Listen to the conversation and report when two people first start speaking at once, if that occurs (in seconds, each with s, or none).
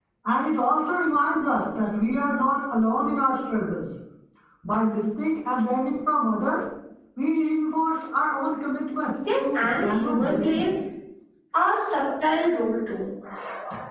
9.4 s